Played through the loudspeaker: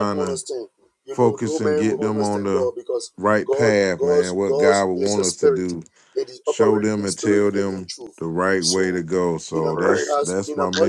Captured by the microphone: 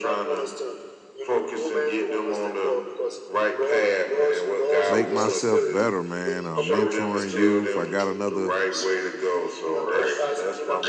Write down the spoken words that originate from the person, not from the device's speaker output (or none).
make myself better, man. Uh, mentoring youth. I got another